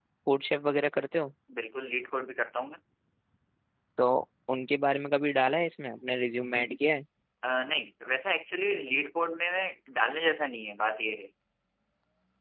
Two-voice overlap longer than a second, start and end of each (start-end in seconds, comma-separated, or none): none